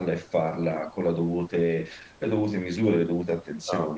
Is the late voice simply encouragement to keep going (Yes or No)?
No